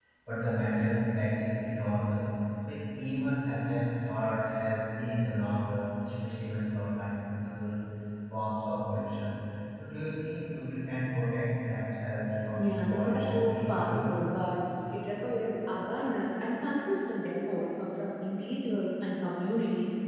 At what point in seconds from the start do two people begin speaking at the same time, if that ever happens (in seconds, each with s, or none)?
12.5 s